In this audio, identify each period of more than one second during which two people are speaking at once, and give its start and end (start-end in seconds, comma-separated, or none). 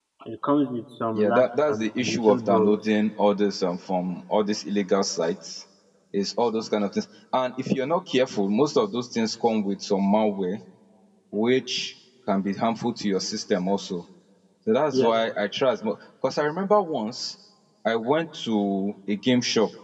1.1-2.7